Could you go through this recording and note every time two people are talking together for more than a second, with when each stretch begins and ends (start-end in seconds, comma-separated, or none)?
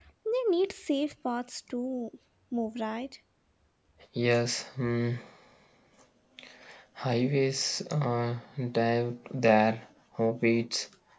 none